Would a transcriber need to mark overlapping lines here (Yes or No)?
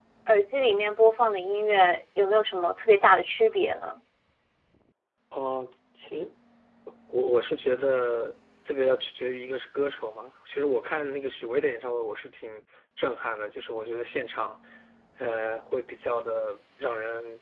No